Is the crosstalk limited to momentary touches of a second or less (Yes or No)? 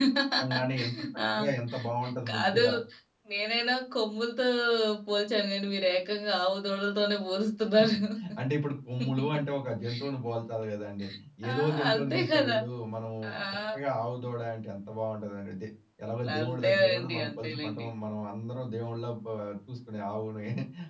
No